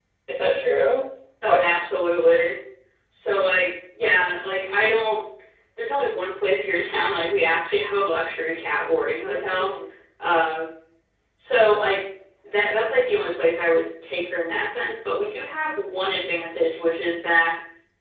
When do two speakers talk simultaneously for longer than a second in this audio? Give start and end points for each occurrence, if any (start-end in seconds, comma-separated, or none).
none